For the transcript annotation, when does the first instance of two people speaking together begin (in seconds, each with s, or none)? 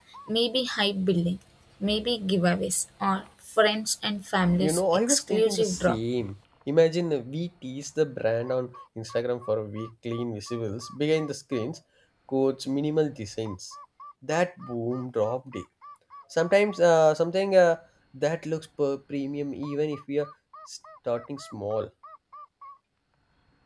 4.6 s